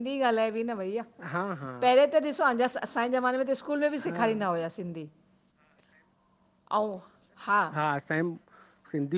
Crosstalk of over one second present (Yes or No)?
No